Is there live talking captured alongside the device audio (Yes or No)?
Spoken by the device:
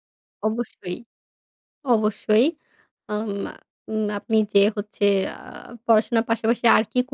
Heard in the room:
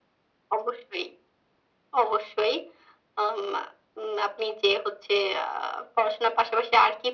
No